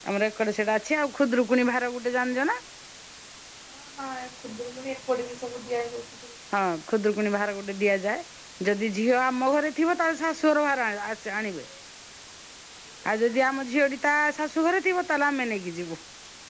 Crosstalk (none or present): none